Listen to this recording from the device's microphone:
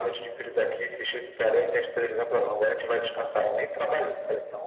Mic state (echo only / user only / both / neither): echo only